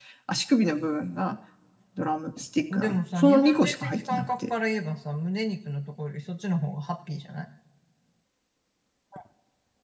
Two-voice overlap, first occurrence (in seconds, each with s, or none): 2.7 s